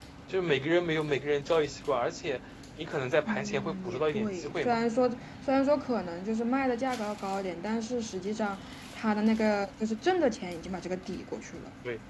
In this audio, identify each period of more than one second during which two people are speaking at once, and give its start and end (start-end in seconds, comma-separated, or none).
3.2-4.8